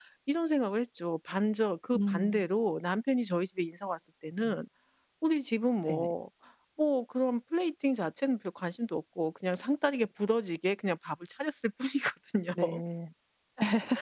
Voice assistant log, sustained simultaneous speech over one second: none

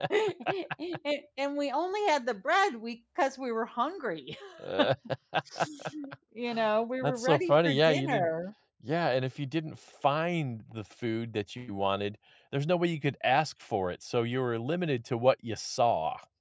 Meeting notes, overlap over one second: present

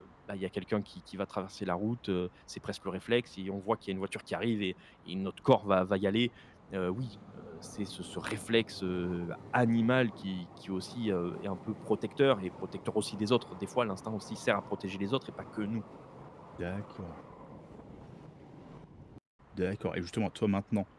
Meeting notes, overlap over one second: none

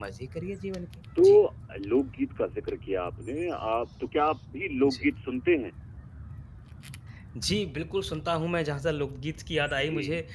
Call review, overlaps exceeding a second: none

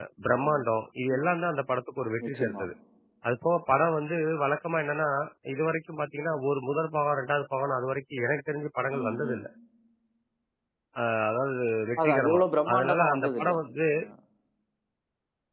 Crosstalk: present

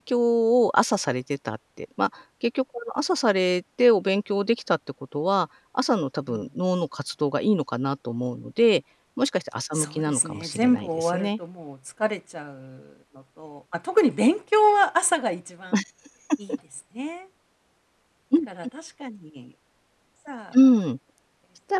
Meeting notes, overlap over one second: present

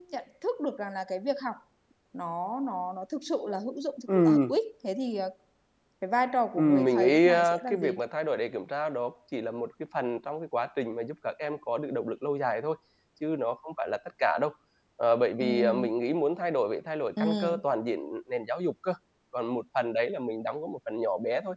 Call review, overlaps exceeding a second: present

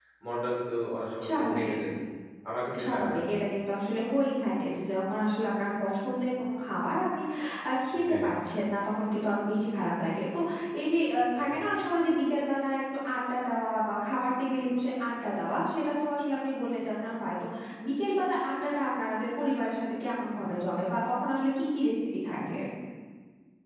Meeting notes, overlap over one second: none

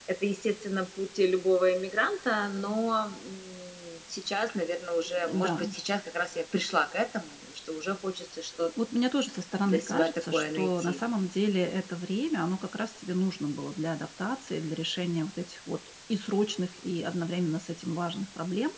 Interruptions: present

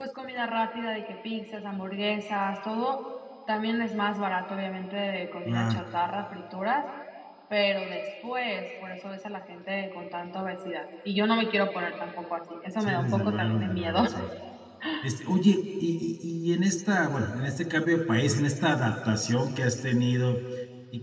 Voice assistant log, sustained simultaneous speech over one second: present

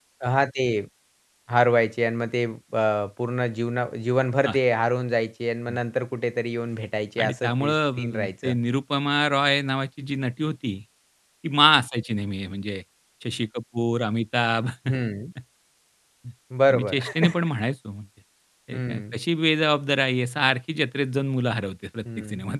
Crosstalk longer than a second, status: present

